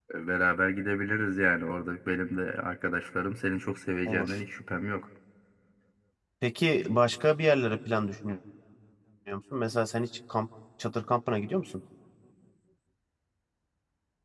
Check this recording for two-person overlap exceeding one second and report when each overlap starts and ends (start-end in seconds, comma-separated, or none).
none